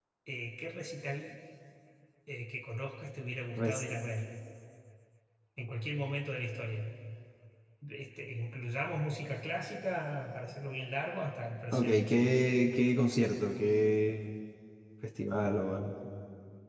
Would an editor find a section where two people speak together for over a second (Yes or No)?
No